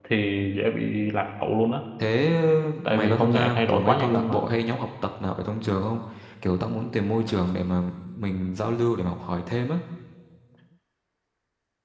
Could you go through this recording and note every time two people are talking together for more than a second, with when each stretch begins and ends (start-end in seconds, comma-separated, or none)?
2.9-4.5